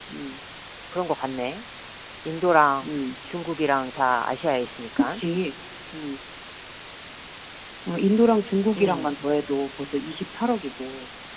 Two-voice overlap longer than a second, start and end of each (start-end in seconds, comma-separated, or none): none